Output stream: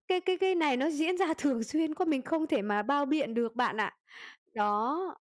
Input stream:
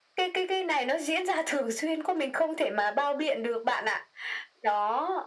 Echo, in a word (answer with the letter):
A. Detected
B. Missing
A